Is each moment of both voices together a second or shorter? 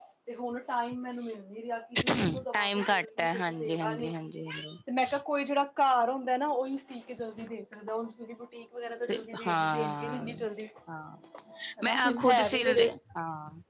No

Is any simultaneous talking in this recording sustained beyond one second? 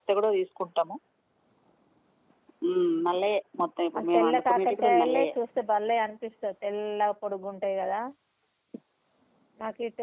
Yes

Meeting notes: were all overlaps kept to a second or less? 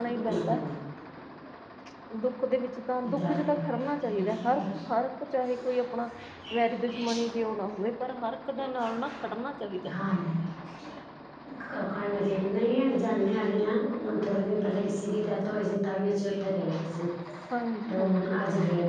No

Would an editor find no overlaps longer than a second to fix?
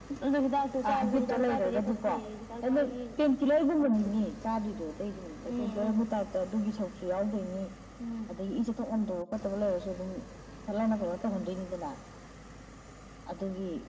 No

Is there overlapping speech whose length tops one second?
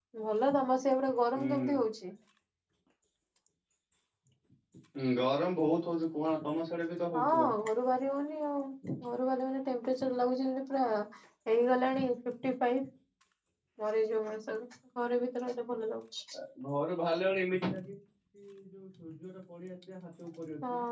No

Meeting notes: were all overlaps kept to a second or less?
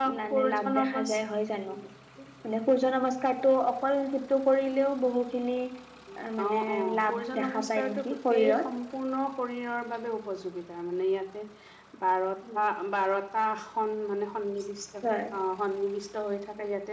No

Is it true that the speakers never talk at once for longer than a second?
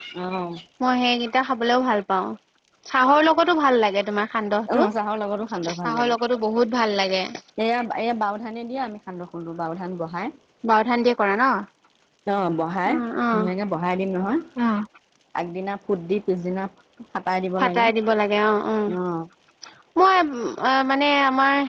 Yes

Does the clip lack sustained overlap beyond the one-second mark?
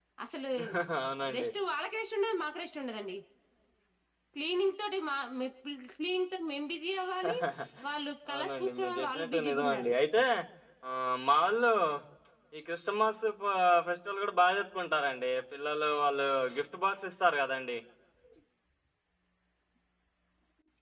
No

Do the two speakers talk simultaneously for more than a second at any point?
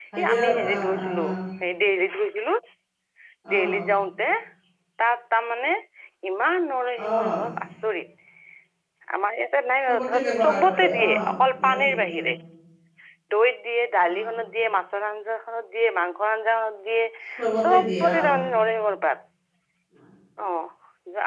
Yes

